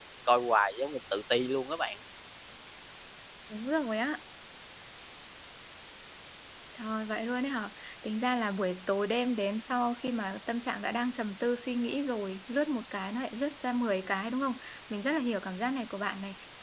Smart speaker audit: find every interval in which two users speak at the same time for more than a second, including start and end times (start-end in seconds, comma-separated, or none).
none